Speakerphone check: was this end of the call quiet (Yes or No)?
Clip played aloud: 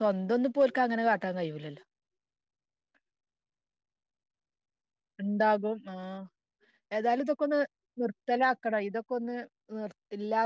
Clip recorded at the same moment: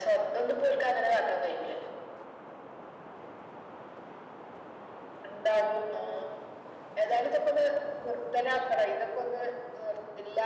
Yes